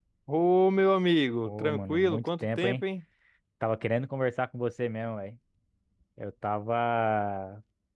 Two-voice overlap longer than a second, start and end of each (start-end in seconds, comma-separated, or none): 1.4-2.8